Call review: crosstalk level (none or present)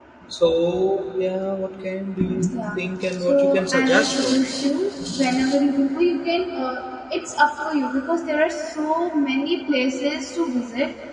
present